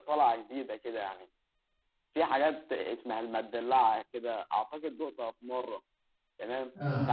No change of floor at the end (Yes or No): Yes